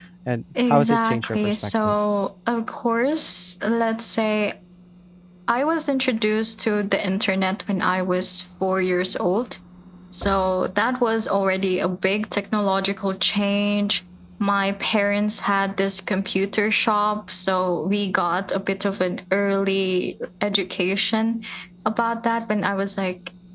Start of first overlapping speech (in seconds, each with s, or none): 0.7 s